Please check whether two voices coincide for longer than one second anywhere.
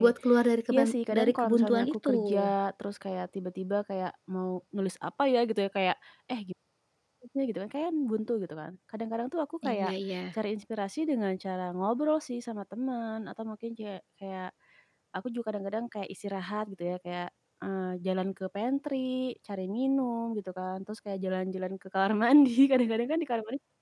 Yes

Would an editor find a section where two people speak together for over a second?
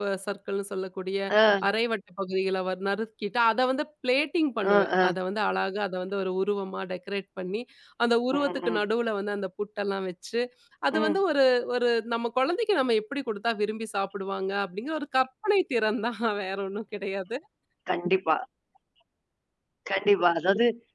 No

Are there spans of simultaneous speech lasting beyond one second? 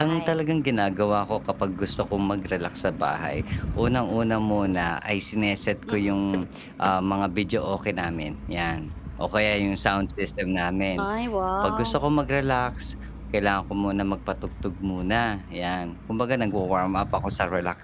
No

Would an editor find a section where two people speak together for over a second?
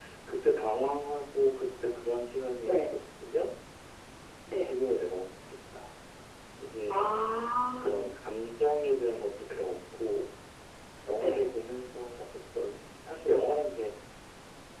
No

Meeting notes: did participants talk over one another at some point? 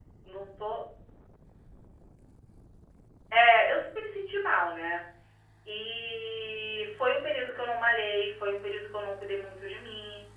No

